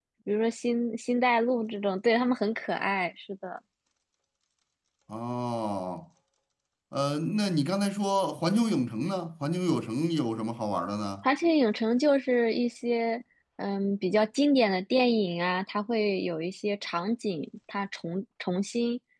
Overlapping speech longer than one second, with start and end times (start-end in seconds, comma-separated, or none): none